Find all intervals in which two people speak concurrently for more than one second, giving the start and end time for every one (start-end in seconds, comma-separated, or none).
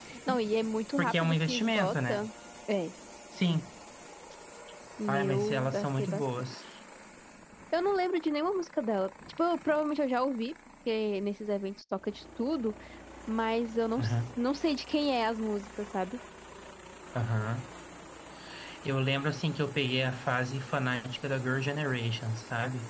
1.0-2.3, 5.1-6.5